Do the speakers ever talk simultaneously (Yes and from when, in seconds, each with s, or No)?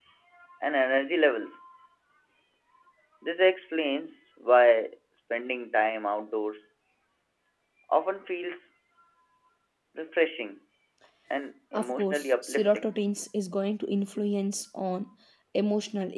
Yes, from 11.7 s